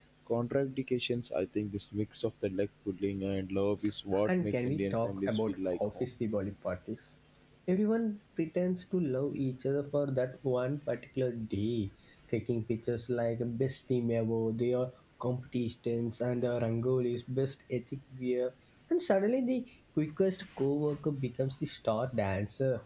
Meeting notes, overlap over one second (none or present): present